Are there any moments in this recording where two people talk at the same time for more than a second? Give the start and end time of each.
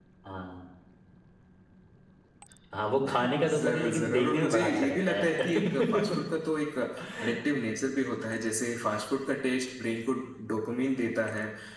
3.1-6.0

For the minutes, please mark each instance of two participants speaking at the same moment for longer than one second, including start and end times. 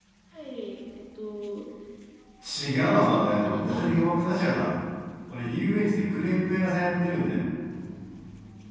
2.6-4.0

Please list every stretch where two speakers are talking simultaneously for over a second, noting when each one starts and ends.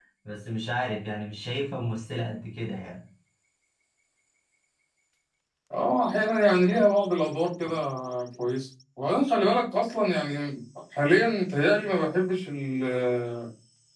none

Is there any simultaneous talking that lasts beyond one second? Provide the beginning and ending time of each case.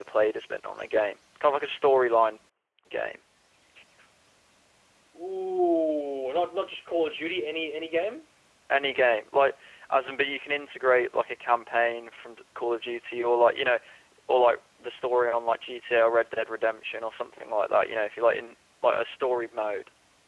none

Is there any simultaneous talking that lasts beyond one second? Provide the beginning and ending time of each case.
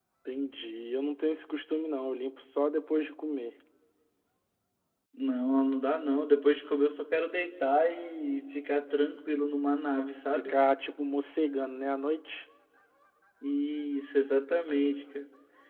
none

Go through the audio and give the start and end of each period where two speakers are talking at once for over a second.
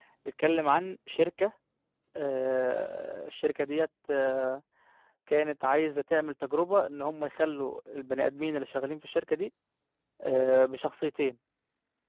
none

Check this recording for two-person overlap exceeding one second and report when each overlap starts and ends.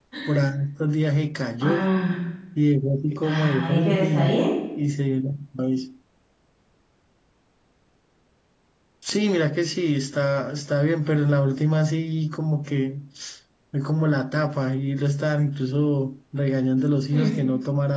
3.2-4.4

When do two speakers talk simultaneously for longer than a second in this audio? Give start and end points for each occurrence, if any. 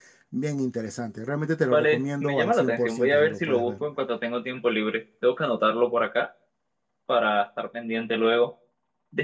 1.7-3.8

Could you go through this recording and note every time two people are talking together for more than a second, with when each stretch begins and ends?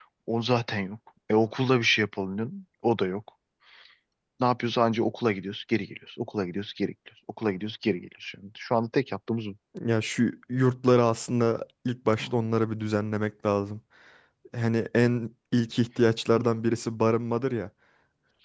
none

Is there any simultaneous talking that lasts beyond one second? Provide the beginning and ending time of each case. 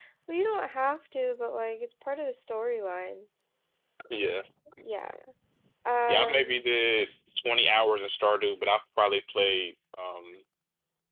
none

